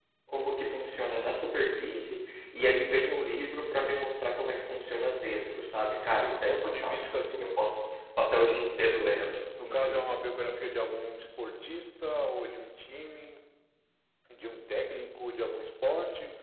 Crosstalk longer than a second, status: present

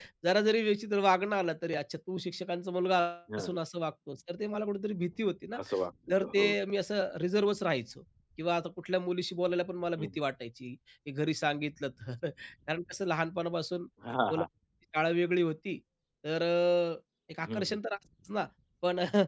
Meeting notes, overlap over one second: none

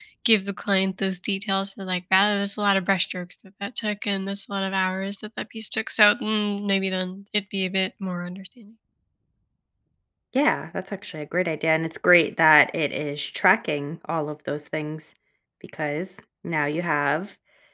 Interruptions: none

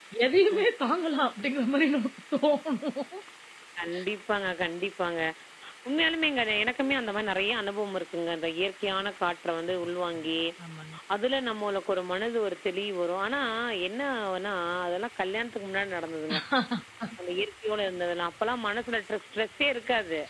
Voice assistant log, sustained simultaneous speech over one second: none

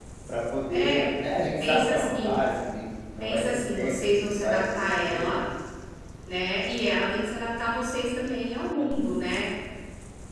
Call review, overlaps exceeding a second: present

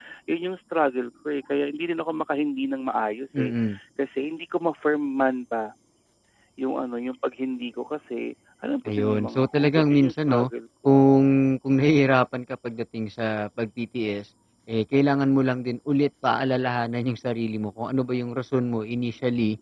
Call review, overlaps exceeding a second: present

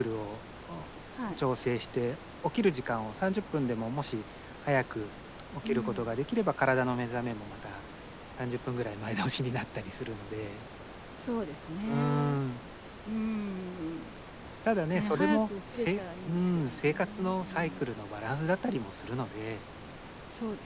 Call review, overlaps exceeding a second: present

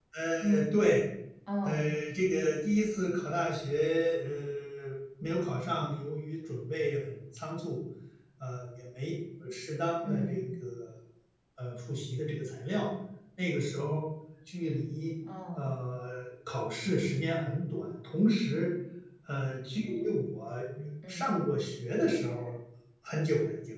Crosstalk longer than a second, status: none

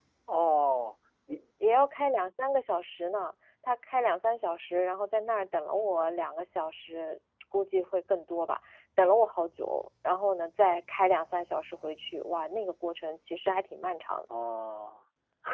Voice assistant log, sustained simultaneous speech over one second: none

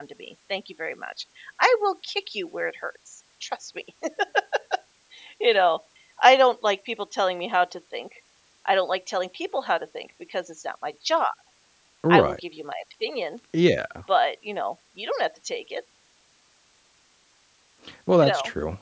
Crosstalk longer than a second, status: none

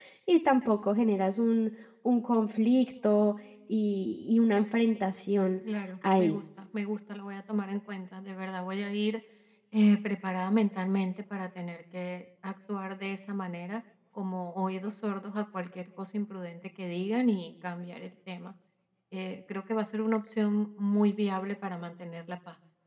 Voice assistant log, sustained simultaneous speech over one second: none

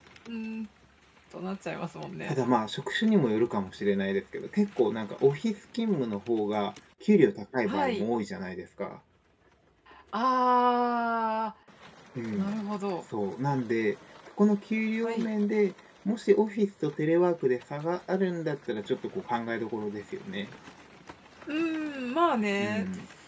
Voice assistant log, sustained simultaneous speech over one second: none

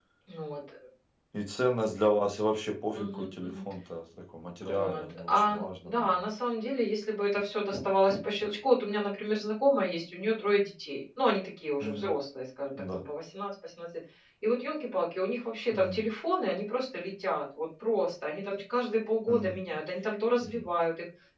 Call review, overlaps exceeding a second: present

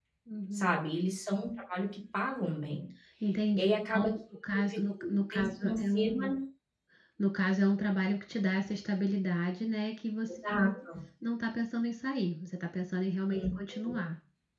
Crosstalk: present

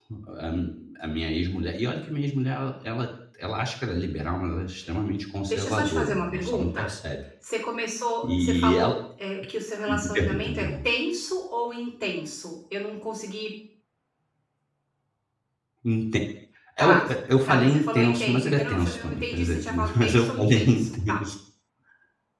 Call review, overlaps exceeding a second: present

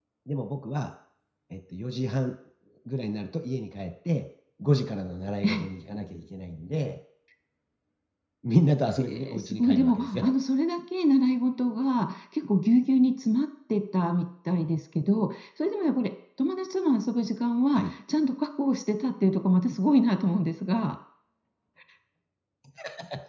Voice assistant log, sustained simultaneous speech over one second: present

